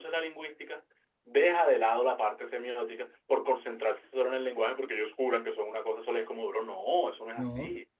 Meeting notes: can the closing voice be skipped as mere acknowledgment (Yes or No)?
No